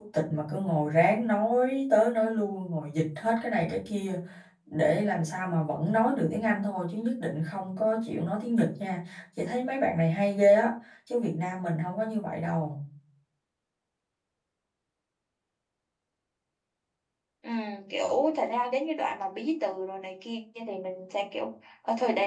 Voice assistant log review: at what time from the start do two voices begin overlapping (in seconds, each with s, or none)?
none